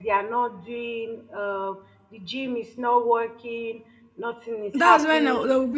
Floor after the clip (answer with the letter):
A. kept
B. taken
B